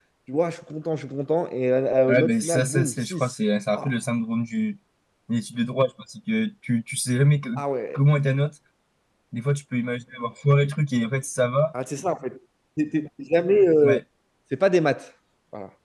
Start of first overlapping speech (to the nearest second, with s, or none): 2 s